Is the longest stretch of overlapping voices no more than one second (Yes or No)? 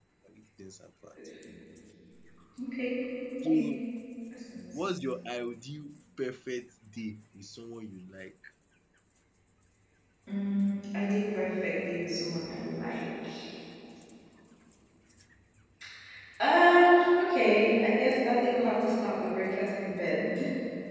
Yes